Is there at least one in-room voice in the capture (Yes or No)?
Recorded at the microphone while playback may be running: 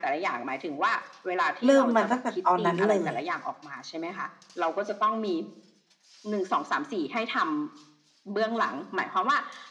Yes